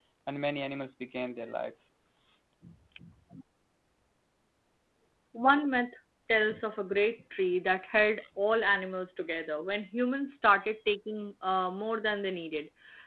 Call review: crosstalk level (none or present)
none